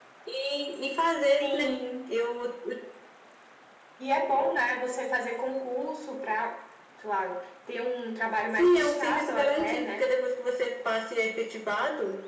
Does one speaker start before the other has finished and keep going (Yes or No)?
Yes